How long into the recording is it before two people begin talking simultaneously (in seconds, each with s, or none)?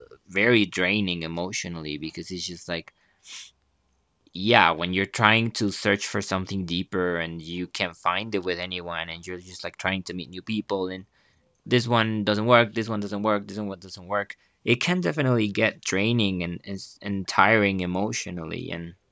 none